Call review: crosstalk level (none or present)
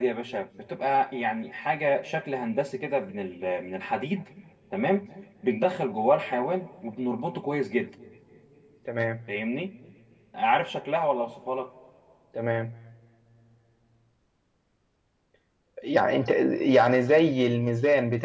none